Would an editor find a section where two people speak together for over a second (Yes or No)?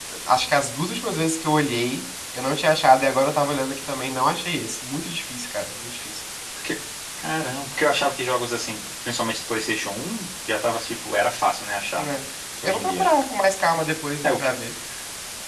No